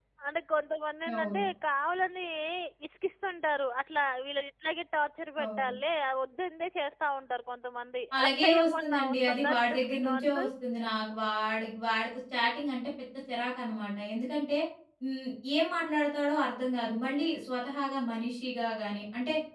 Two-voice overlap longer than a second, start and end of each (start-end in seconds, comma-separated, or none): 8.2-10.5